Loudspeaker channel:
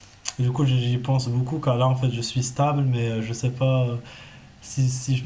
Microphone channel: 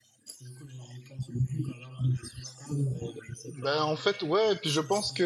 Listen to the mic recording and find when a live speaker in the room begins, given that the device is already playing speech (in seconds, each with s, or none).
3.5 s